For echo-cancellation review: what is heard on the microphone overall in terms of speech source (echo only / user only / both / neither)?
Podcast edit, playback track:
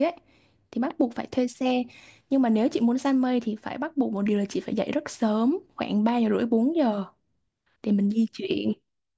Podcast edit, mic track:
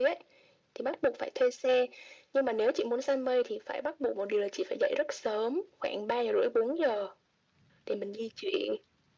echo only